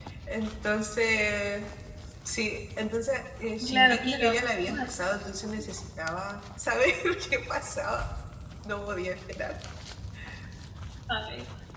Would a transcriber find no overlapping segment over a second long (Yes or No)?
No